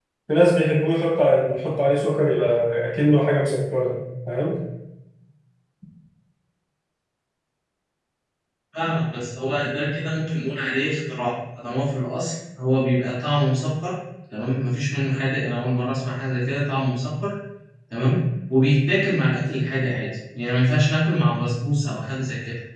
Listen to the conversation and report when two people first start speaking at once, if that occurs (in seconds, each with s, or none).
none